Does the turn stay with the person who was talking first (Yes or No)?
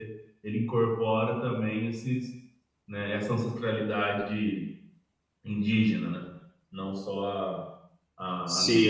No